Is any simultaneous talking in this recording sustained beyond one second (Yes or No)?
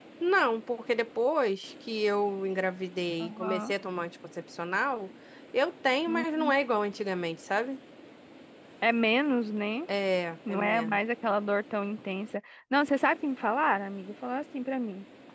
No